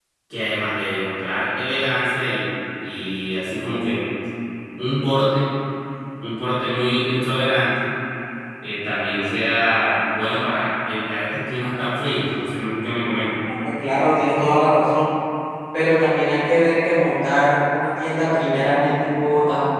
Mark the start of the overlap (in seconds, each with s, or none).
none